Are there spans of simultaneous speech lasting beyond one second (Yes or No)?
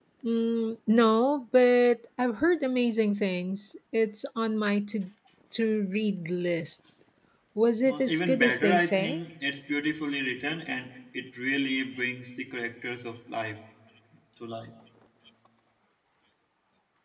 Yes